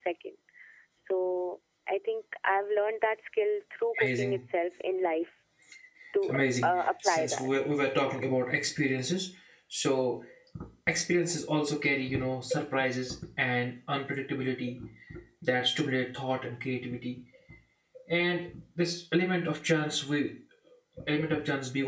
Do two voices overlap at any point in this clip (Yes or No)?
Yes